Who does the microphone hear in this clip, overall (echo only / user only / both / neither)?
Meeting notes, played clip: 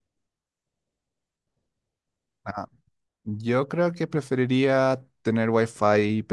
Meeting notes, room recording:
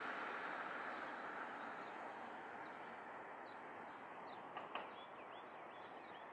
neither